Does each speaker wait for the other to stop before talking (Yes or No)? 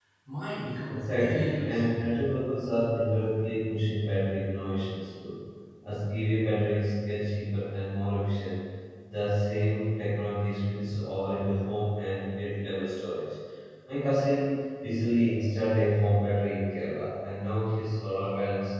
No